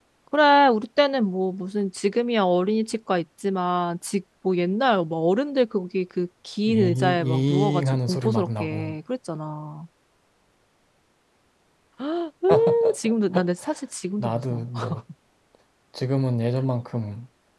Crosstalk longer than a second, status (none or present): present